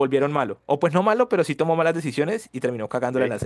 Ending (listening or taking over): taking over